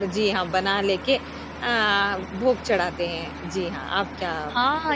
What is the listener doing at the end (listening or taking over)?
taking over